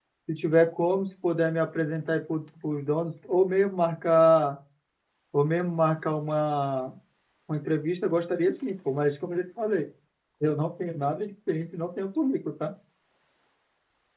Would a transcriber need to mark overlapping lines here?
No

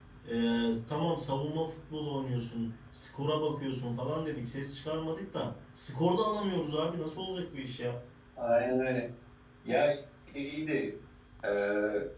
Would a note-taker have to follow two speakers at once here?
No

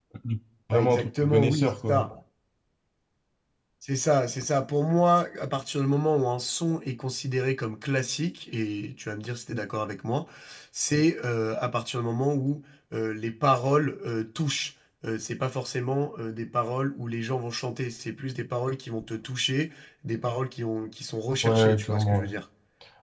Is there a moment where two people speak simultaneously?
Yes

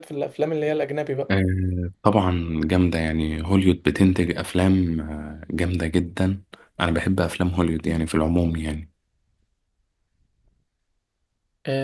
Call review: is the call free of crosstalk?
Yes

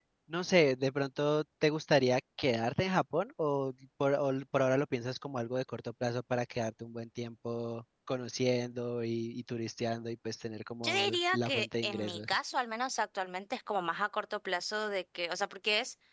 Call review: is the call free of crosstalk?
No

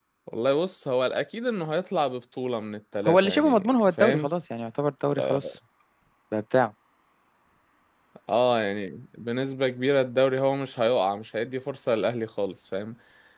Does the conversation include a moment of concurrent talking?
Yes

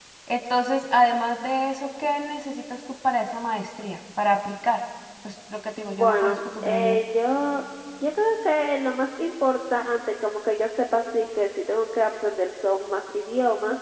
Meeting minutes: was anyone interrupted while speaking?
Yes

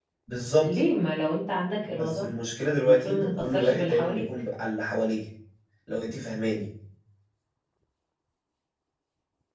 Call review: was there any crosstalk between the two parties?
Yes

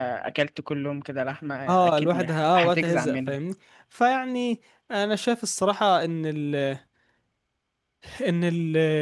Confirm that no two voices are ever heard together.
No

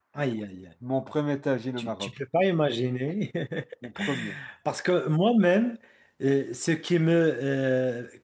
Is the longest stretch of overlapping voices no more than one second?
Yes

